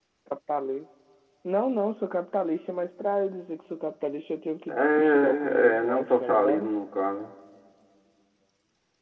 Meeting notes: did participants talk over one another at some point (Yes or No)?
Yes